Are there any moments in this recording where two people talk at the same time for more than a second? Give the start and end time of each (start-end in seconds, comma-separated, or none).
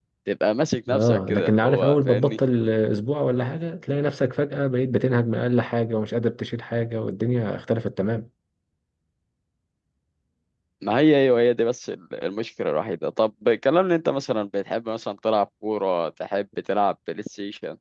0.9-2.4